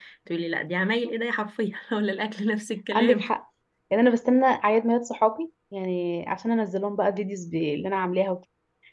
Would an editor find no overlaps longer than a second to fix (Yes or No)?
Yes